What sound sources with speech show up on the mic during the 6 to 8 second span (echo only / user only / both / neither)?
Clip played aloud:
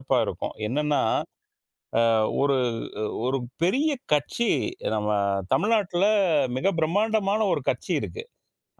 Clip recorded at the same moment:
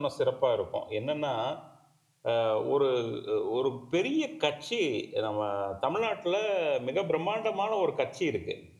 echo only